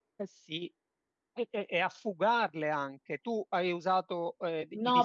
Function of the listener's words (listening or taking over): taking over